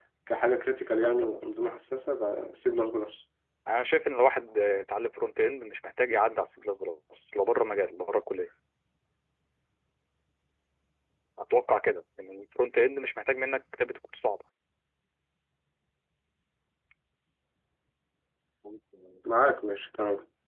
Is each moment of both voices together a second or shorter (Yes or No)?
Yes